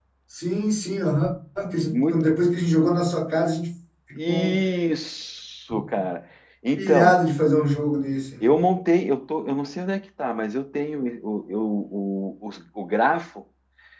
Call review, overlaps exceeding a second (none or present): none